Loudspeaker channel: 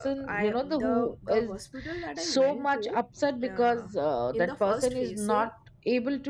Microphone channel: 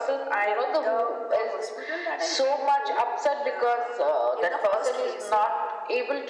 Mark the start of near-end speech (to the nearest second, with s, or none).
none